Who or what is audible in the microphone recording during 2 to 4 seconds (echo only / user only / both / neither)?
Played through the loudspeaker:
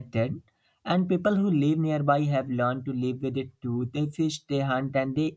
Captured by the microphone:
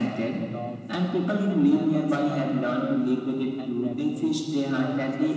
both